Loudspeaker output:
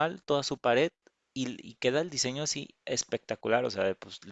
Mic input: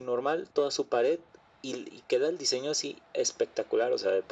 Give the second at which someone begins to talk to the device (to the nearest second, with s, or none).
none